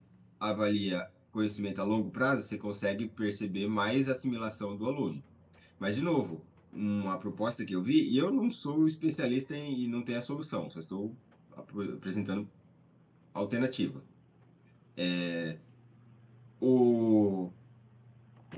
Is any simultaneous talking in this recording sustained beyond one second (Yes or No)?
No